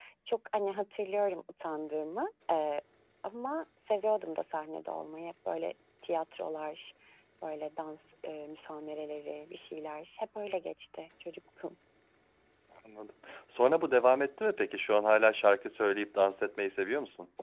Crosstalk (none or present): none